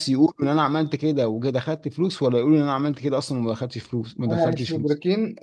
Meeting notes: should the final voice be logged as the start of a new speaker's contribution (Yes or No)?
Yes